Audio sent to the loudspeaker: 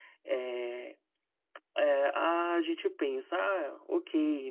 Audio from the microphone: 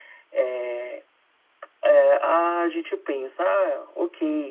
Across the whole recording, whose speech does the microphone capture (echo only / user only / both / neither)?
echo only